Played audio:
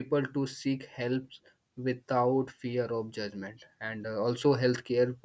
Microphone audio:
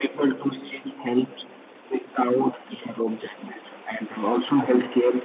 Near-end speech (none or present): none